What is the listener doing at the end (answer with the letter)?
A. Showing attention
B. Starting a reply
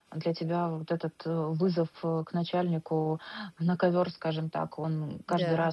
A